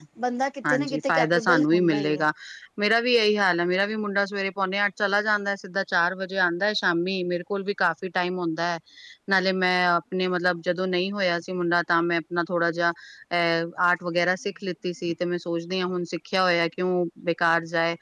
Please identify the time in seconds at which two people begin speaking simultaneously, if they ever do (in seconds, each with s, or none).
0.7 s